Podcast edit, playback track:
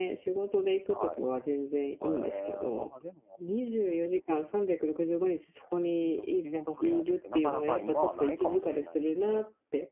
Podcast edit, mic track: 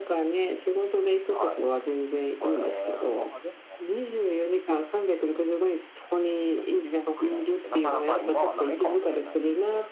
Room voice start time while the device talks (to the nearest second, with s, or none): none